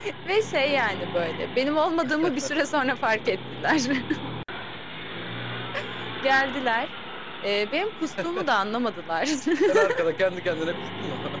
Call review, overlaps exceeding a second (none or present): none